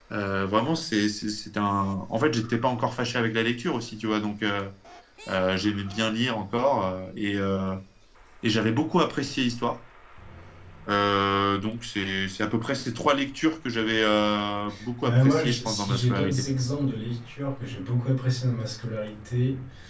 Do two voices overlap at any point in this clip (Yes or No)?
Yes